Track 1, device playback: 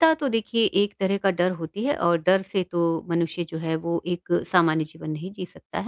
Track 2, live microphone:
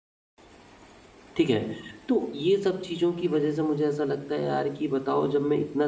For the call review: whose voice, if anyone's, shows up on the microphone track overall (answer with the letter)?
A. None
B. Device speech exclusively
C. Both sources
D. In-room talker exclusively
D